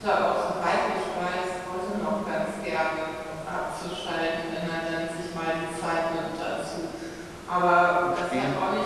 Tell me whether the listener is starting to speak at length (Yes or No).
No